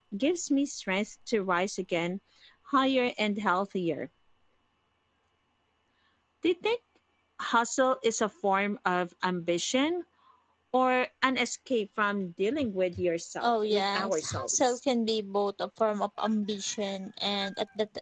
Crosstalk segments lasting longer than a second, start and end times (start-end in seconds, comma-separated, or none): 13.4-14.8